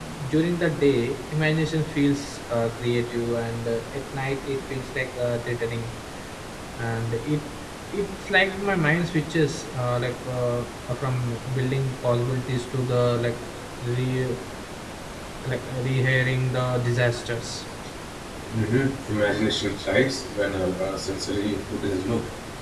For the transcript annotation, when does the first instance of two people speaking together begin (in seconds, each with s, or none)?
none